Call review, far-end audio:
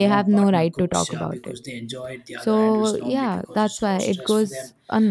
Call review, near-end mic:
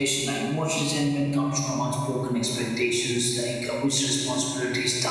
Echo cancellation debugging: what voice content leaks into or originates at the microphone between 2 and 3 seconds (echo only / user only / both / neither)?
user only